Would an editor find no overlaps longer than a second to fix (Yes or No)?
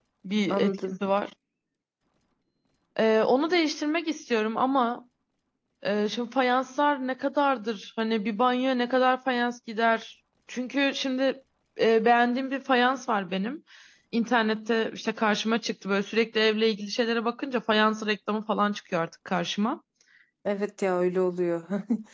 Yes